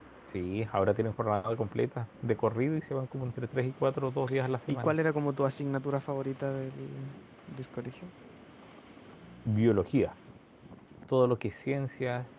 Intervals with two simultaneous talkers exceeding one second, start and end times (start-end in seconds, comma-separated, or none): none